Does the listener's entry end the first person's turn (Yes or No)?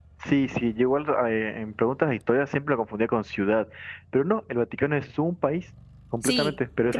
Yes